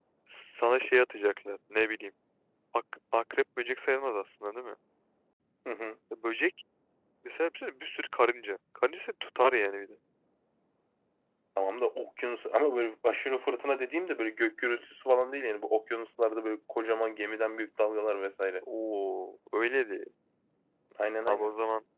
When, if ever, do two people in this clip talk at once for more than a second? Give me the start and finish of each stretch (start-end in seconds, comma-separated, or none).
none